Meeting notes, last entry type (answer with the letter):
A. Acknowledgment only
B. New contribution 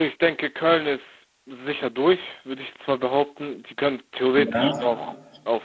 A